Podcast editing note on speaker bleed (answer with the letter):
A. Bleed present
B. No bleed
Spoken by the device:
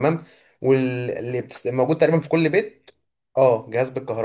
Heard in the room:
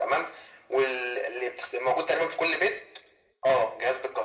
A